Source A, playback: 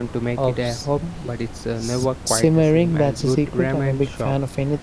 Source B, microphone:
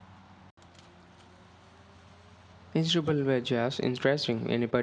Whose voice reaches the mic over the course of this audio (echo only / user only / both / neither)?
user only